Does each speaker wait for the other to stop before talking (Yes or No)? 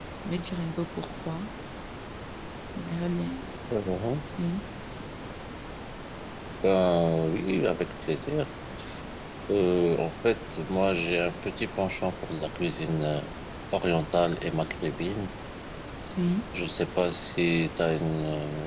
Yes